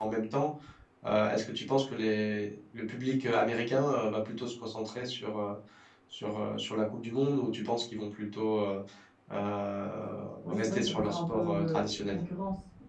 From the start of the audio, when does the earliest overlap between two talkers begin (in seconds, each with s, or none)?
10.4 s